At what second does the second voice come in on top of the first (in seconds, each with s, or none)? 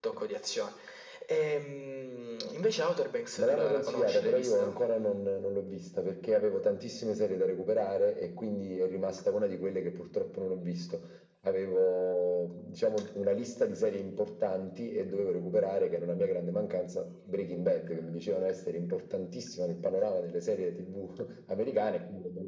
3.4 s